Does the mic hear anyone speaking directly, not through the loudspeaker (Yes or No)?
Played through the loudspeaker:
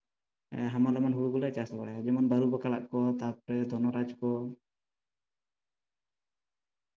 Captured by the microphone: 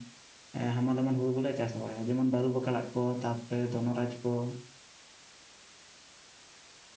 No